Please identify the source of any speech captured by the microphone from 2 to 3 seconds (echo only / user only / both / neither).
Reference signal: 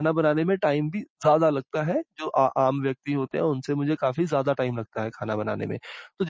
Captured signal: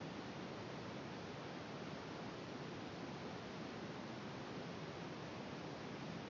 neither